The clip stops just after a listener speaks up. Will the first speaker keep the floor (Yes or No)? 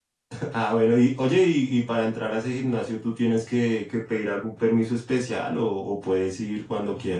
No